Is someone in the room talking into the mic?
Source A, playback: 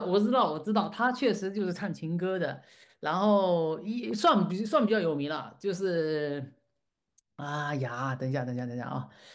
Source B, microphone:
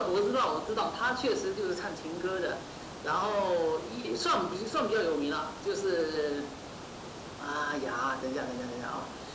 No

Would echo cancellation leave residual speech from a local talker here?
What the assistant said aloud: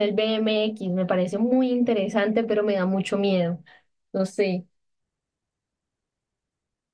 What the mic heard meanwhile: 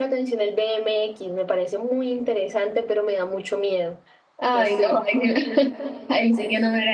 Yes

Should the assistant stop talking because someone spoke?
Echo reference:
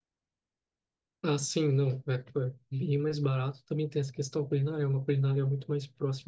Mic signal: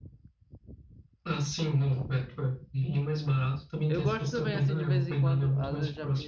Yes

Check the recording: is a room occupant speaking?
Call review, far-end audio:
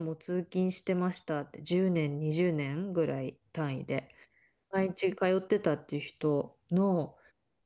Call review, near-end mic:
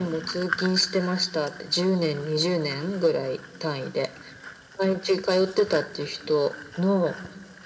No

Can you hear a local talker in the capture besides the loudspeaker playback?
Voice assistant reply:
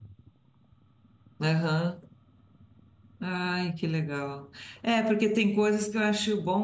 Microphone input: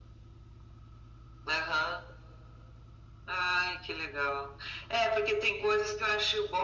No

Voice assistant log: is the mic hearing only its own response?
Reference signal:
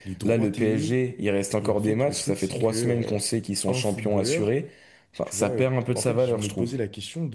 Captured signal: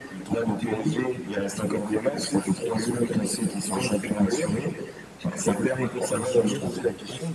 No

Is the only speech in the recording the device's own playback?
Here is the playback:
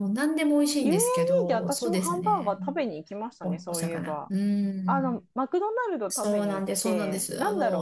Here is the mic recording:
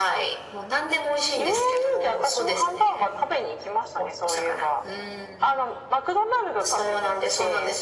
Yes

